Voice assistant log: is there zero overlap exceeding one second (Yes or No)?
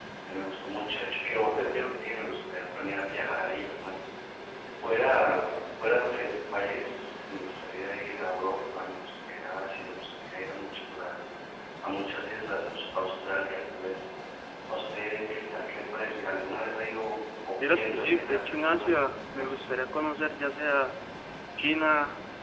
No